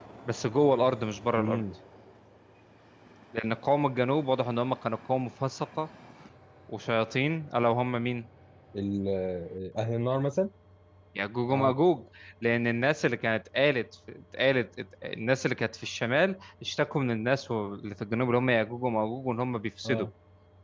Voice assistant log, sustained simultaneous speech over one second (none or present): none